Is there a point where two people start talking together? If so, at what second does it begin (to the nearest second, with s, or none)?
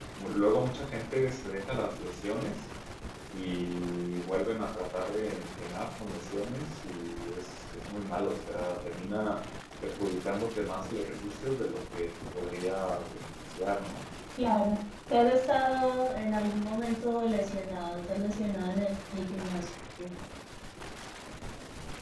none